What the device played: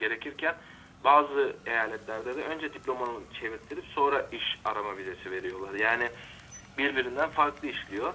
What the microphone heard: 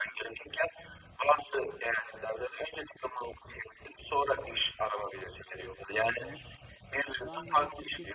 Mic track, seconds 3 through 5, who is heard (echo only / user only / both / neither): echo only